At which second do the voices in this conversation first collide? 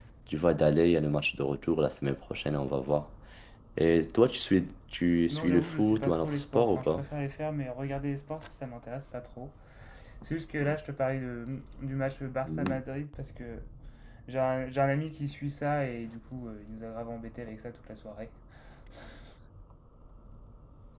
5.3 s

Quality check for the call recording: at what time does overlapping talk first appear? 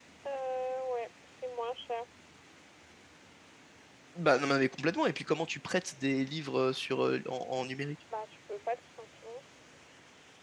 none

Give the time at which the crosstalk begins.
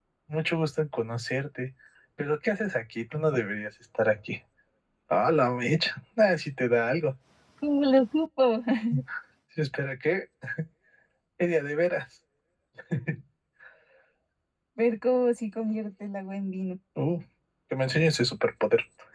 none

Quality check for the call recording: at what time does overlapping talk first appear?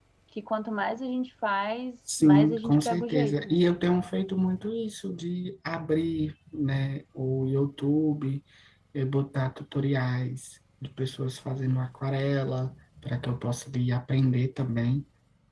2.1 s

